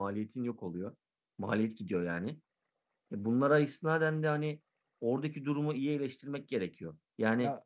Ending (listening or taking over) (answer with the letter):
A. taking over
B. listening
B